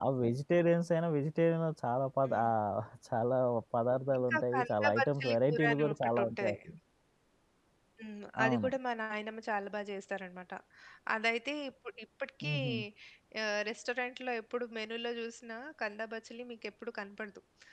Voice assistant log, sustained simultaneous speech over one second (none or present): present